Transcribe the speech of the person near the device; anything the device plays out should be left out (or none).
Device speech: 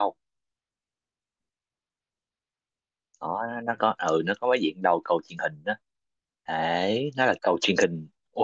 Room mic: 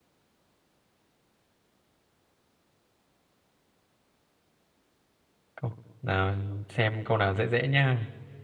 câu nào xem câu nào dễ dễ nhá.